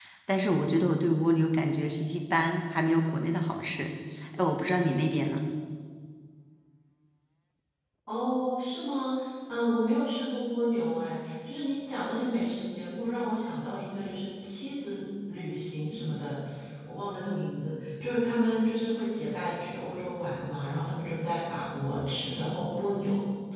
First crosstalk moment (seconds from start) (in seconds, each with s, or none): none